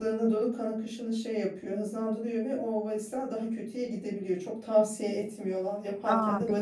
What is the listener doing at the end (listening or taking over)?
listening